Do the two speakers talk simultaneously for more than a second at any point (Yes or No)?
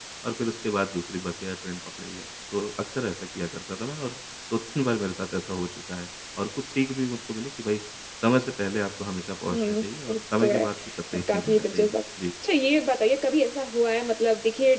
Yes